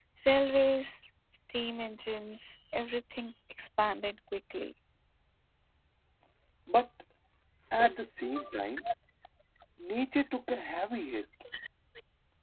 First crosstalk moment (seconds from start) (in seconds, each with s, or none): none